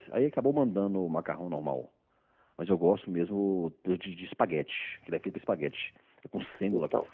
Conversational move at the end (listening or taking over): listening